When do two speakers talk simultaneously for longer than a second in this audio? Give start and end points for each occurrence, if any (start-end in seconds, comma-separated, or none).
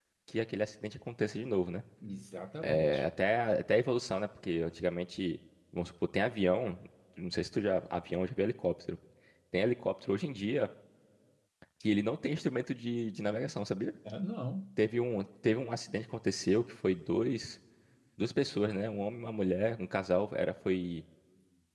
none